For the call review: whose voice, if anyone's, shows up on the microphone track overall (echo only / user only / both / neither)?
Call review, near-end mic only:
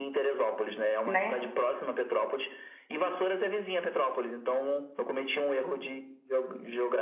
both